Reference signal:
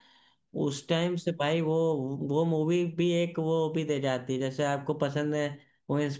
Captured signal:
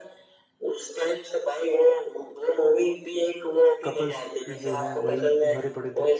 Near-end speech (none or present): present